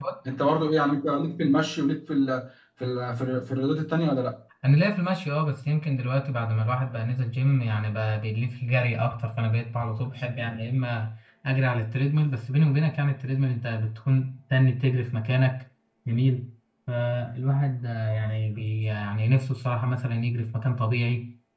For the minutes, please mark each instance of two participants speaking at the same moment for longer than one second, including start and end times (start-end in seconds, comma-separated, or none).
none